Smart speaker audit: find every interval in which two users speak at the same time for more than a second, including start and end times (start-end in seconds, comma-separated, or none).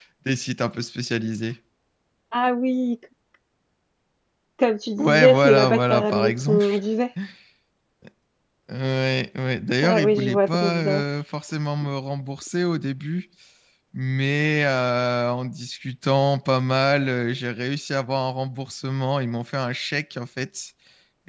5.0-6.7, 9.8-11.0